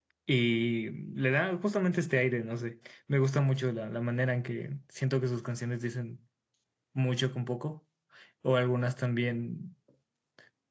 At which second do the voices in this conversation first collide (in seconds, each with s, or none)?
none